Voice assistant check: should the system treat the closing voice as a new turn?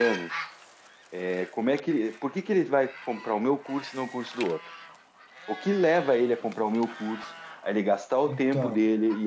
No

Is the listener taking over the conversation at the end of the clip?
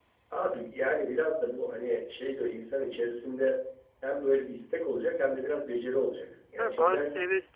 Yes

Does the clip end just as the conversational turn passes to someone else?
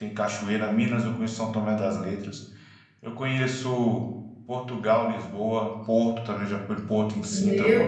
Yes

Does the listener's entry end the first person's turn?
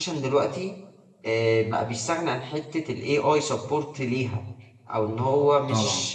No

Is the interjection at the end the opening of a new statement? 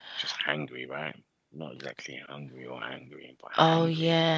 Yes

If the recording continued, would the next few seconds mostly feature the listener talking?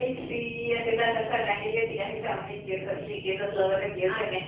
Yes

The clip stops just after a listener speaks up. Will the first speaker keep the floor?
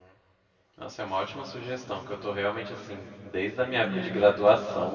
Yes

